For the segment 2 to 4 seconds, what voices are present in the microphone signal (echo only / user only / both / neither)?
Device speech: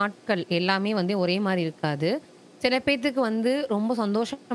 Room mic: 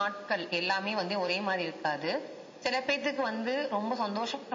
echo only